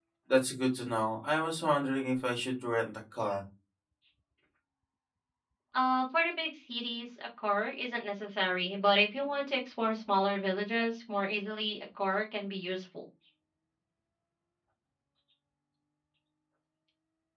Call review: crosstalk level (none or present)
none